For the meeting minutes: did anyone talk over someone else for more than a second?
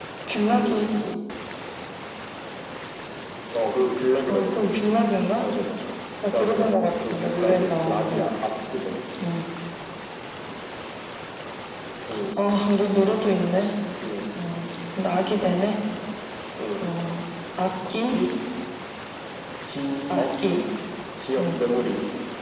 Yes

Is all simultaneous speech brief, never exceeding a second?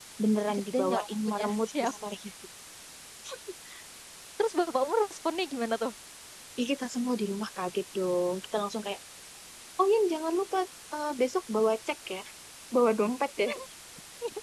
No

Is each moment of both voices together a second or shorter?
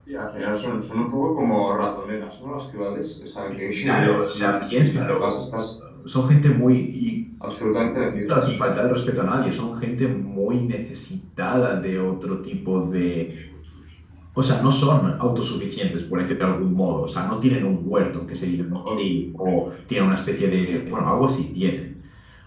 No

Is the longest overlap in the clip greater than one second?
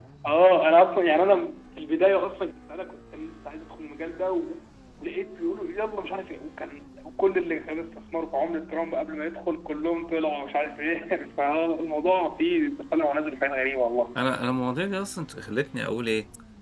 No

